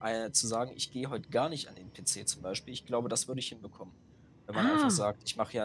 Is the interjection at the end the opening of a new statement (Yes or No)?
No